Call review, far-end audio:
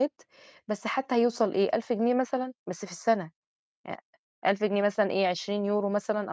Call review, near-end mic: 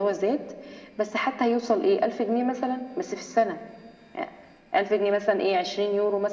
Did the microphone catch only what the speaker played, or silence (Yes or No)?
Yes